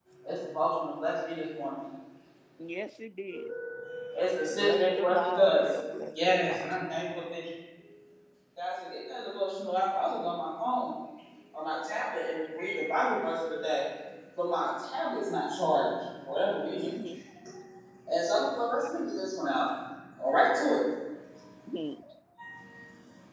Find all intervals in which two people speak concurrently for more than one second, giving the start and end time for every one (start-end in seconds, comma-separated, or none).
4.5-7.0